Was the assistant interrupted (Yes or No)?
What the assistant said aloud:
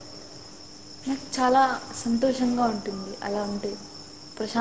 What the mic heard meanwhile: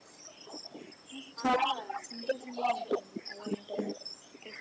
Yes